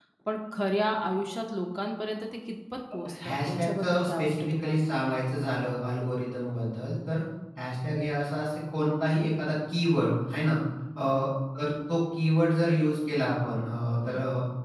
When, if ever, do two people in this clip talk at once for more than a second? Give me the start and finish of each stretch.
3.2-4.9

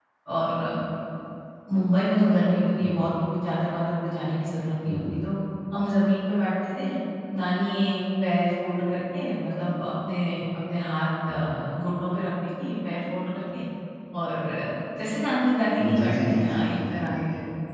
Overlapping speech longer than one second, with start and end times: 16.0-17.2

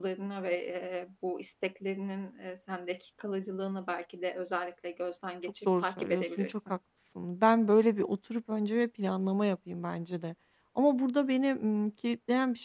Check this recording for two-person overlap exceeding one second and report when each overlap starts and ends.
5.4-6.7

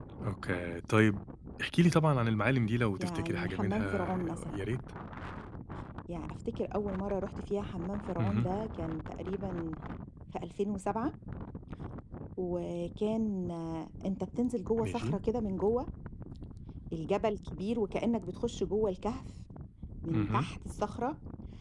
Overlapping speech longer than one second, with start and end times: 3.0-4.6

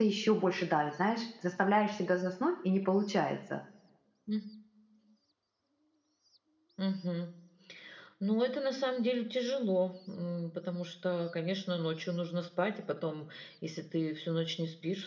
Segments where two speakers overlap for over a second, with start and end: none

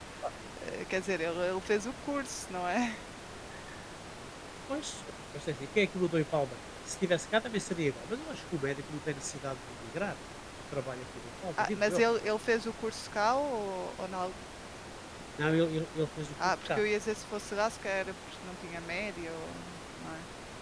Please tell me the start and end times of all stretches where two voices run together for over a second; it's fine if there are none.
none

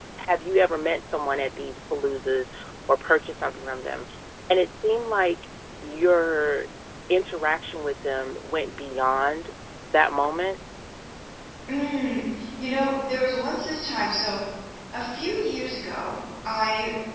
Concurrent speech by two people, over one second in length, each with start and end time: none

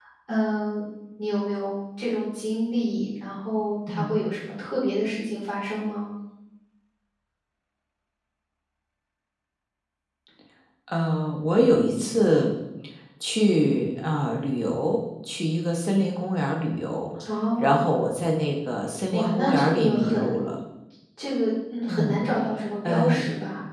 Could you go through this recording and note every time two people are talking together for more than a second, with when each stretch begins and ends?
19.1-20.5

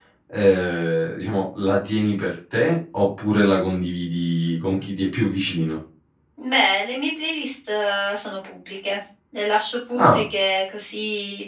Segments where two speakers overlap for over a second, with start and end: none

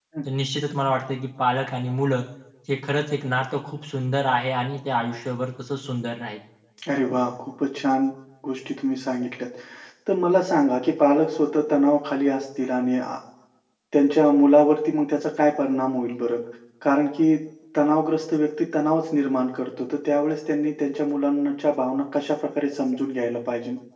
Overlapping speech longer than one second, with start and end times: none

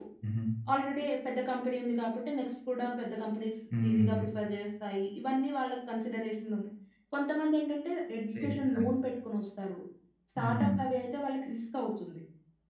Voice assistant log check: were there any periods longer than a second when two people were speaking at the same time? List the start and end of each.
none

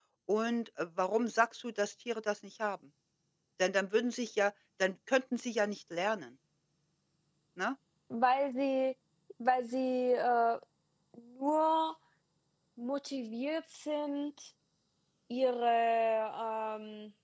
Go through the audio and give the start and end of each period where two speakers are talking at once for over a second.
none

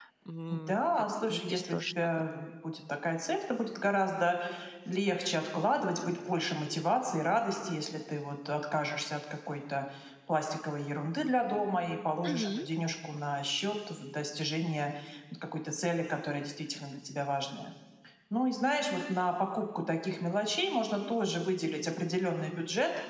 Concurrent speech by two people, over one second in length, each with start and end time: 0.7-2.3

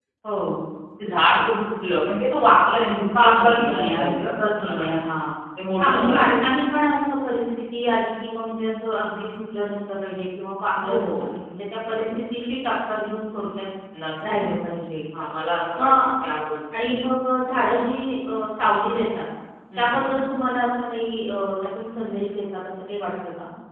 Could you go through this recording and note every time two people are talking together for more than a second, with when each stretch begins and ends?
3.1-4.8

